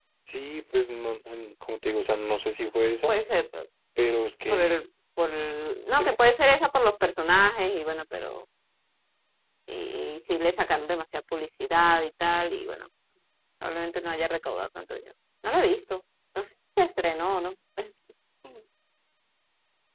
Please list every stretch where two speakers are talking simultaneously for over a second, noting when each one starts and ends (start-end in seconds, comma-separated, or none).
none